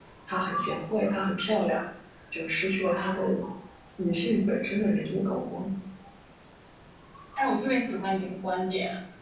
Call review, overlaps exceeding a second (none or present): none